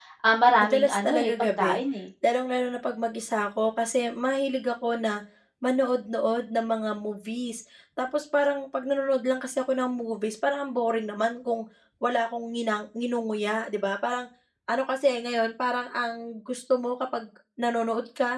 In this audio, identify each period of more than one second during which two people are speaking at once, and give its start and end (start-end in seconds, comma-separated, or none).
0.6-1.8